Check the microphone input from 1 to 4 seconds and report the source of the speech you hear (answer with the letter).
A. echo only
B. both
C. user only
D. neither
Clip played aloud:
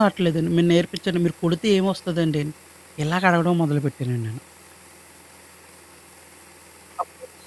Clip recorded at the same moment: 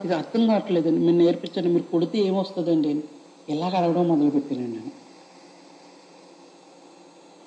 A